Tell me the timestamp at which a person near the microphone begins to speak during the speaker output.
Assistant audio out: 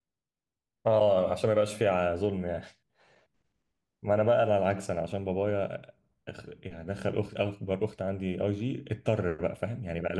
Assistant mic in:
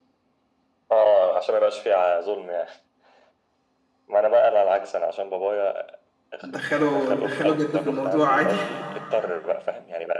6.4 s

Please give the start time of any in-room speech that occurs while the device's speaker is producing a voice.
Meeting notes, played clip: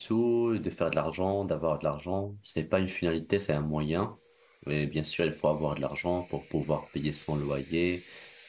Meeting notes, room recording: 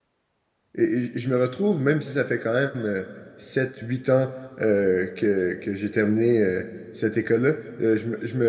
0.8 s

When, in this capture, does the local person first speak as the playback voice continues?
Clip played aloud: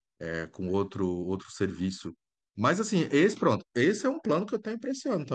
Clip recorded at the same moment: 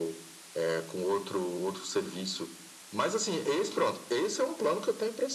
none

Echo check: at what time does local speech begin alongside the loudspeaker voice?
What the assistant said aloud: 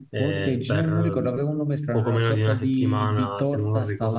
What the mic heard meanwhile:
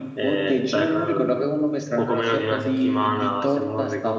none

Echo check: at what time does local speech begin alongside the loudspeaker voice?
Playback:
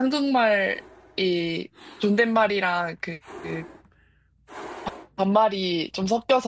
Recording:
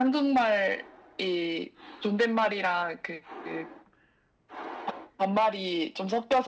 none

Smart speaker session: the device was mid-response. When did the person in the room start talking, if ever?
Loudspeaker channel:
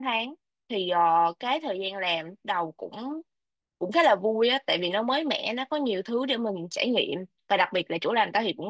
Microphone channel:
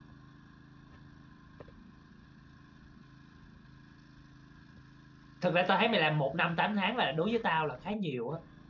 5.4 s

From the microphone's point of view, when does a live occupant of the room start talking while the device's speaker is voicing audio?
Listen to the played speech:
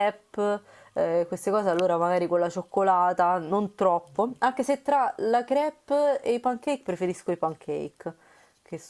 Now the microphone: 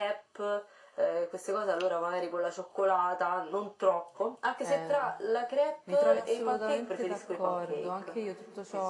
4.6 s

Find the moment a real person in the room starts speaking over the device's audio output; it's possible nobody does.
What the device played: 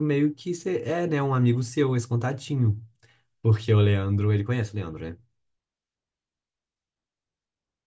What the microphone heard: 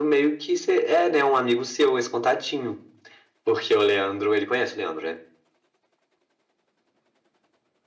none

